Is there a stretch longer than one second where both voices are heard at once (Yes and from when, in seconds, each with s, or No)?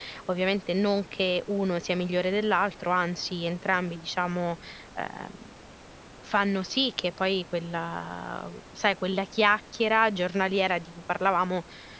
No